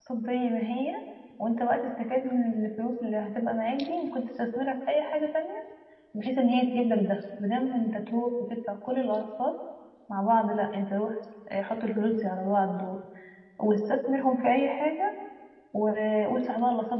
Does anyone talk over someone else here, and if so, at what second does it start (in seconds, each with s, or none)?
none